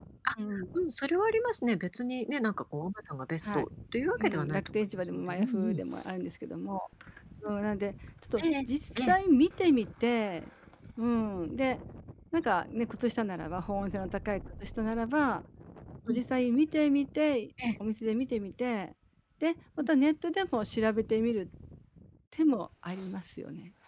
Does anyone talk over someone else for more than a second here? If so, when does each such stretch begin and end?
4.2-5.8

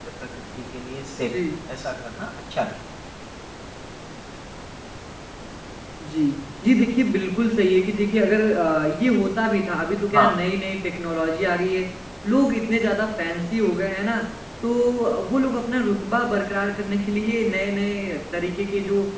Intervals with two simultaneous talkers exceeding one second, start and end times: none

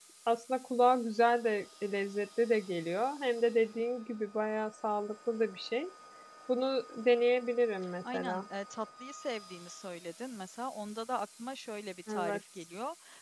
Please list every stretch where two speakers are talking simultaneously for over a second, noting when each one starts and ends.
none

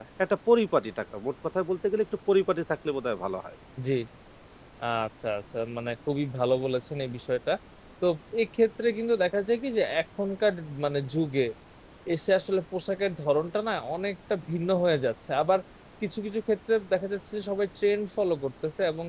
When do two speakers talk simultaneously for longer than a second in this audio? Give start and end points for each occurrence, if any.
none

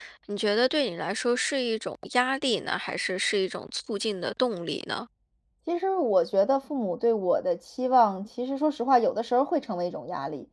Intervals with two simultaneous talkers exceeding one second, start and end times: none

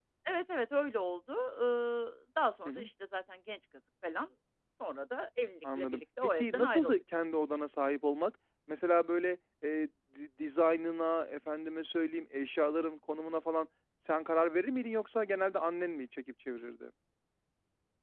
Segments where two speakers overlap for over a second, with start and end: 5.6-6.9

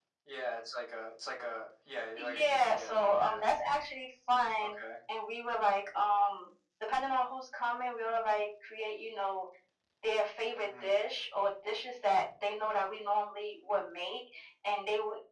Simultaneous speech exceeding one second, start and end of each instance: 2.1-3.5

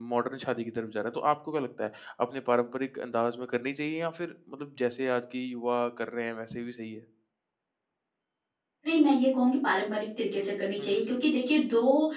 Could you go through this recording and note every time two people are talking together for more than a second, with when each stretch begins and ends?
none

